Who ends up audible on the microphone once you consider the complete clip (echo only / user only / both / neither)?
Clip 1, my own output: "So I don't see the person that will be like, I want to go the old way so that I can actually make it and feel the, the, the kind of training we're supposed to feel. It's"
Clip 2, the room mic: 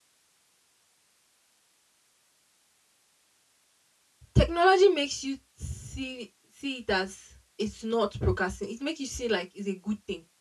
user only